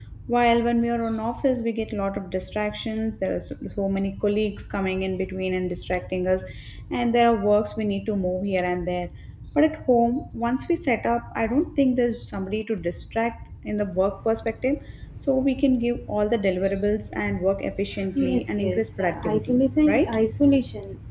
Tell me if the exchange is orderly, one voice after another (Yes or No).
No